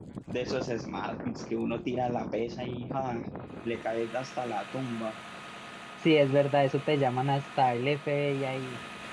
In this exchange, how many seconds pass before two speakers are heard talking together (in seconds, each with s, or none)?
none